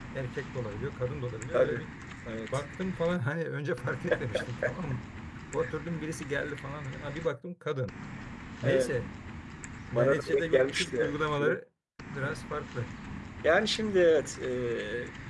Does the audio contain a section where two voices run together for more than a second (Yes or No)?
Yes